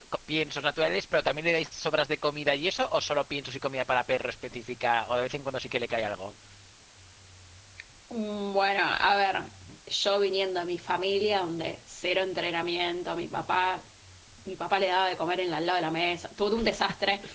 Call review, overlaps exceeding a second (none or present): none